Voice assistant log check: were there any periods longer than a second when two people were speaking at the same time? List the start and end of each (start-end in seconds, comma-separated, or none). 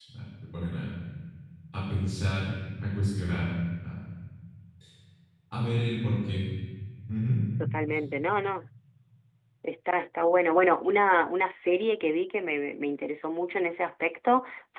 none